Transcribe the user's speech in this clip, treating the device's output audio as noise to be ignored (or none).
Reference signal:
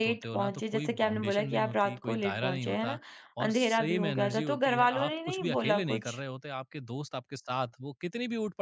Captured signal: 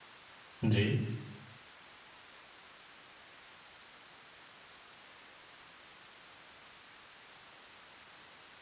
जी।